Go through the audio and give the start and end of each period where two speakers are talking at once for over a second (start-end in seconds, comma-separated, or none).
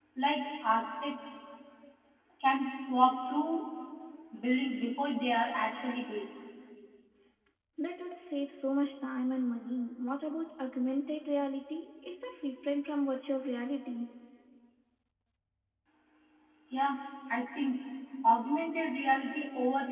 none